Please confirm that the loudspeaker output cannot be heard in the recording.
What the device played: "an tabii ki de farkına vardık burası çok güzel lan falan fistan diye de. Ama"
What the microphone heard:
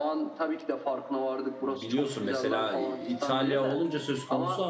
No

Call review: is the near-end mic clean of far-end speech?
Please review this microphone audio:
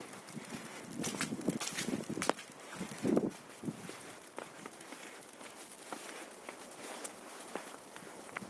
Yes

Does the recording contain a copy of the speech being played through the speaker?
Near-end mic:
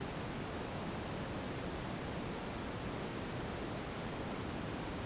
No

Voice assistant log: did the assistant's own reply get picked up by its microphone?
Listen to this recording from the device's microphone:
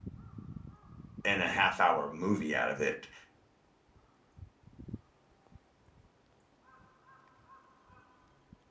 No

